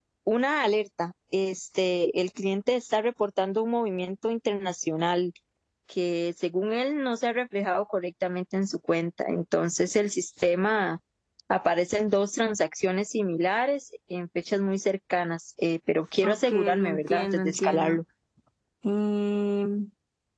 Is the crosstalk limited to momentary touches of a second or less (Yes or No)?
No